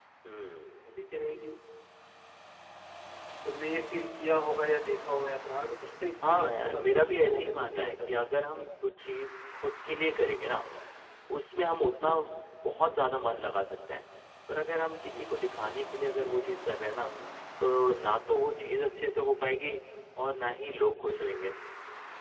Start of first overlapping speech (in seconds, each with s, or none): 6.2 s